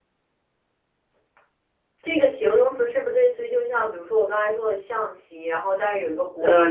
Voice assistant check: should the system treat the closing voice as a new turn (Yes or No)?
Yes